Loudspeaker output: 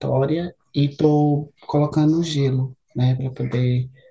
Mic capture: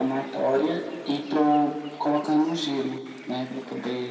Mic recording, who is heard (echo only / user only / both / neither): echo only